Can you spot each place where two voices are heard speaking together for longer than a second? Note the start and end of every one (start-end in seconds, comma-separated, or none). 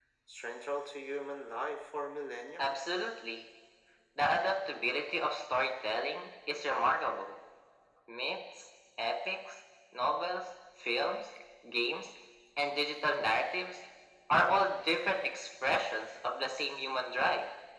none